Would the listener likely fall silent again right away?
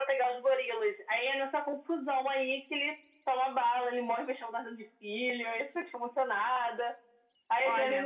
Yes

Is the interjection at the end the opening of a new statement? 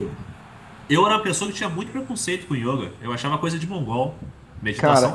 Yes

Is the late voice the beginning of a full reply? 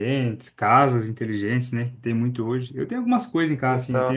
No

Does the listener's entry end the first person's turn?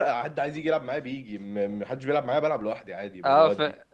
Yes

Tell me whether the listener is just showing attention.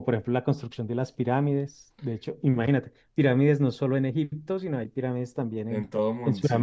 No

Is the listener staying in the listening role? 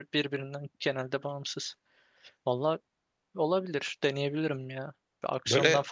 Yes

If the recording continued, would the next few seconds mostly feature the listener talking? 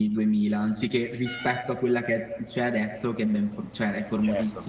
Yes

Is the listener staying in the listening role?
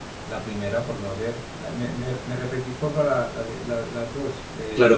No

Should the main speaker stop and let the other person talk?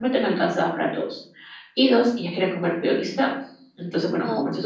No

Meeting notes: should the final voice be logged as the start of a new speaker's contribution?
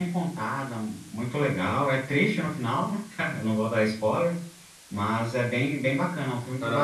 Yes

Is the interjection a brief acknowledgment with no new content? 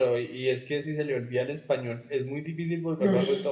Yes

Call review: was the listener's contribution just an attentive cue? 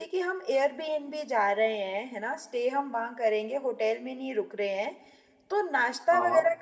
Yes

